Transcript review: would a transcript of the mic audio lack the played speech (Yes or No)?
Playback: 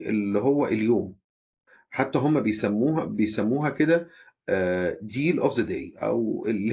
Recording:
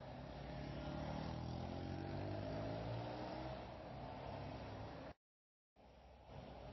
Yes